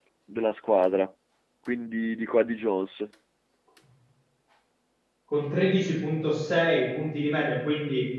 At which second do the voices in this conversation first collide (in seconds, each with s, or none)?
none